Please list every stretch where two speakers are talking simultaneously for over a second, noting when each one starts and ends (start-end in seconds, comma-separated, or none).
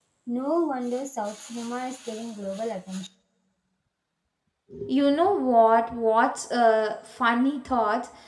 none